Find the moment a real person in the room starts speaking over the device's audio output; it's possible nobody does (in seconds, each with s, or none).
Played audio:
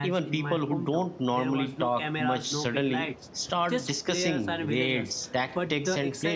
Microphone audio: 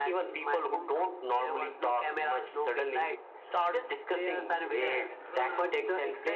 4.7 s